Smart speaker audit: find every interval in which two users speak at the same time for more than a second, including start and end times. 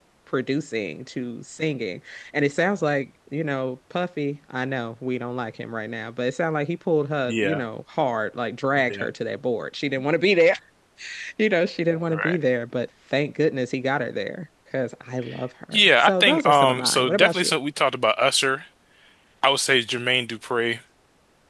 15.7-17.5

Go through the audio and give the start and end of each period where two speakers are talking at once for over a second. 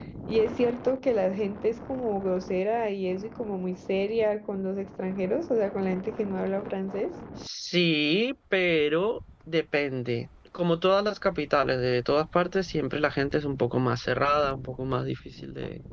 none

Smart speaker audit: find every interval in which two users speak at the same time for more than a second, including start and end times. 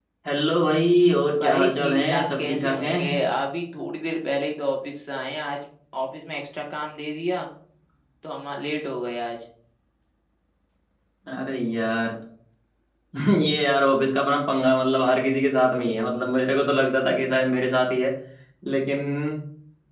1.4-3.0

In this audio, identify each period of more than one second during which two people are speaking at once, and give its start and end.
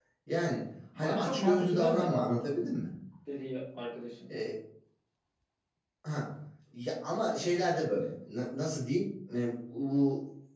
1.0-2.4

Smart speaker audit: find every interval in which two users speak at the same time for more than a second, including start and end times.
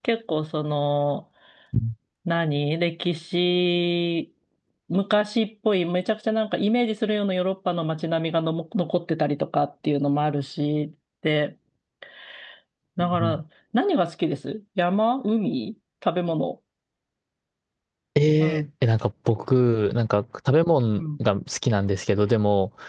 none

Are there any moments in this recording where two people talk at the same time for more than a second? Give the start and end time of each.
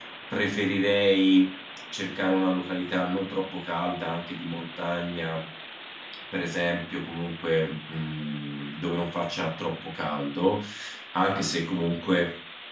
none

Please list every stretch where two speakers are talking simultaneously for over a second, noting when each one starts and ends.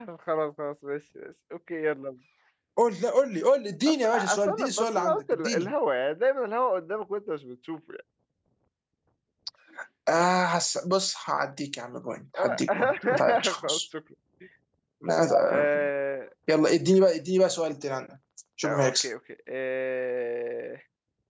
3.9-5.7, 12.4-13.8

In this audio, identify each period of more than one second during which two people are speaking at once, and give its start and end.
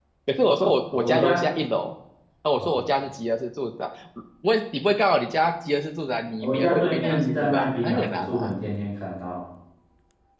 6.4-8.5

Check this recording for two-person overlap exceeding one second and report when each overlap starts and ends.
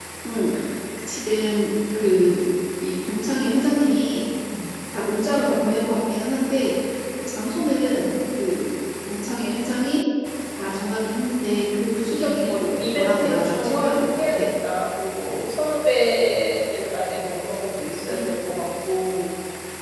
12.2-14.4

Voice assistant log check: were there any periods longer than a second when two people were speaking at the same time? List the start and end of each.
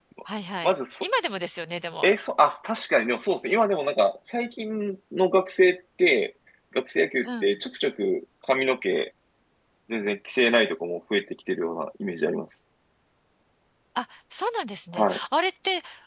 none

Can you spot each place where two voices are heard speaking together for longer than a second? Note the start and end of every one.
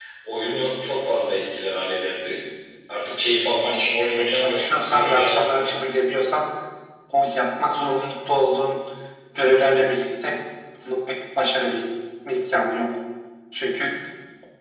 4.3-5.9

